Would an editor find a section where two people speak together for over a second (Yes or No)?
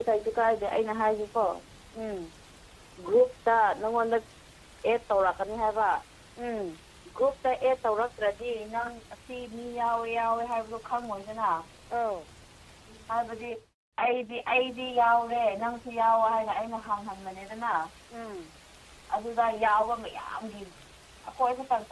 No